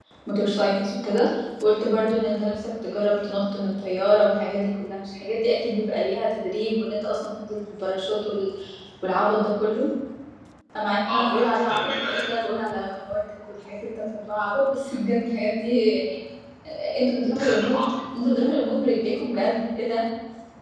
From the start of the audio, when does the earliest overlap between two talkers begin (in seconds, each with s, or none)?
11.1 s